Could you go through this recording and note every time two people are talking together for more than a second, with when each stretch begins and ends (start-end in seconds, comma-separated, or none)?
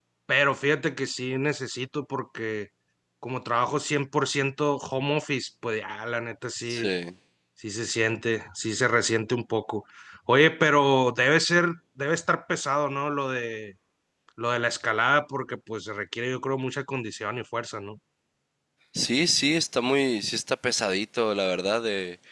none